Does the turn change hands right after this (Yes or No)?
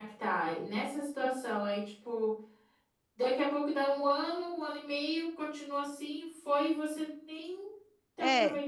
Yes